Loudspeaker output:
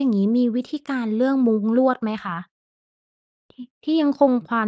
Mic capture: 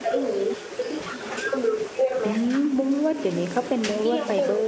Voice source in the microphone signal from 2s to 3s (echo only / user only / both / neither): both